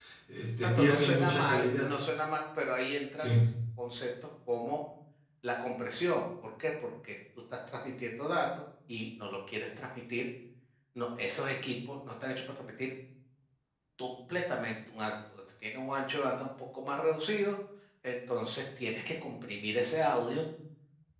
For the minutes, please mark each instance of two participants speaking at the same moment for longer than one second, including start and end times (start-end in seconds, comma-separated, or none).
0.6-1.9